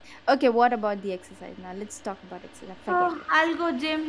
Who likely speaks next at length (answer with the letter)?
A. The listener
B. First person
A